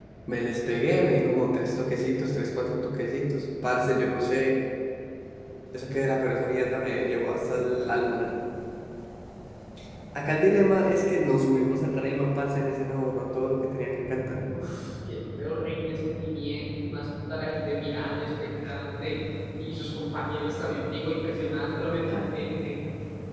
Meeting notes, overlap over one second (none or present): none